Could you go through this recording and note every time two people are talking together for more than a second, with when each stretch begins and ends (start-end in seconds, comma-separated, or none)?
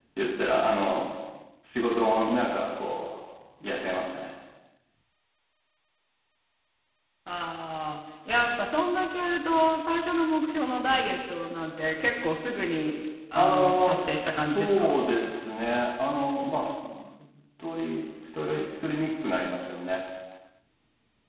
13.3-14.9